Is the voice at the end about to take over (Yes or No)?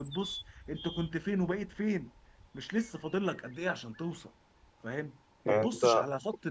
No